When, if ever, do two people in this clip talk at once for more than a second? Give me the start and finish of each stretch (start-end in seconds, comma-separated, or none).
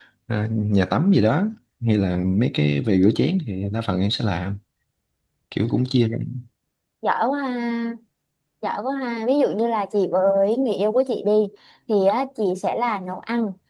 none